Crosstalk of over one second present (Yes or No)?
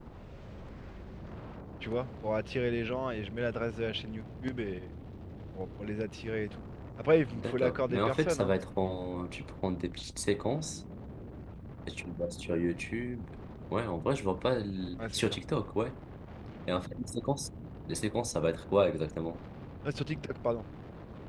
Yes